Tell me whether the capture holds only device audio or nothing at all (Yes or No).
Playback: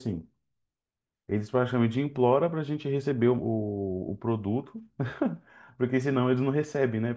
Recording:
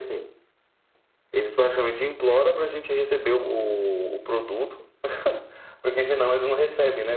Yes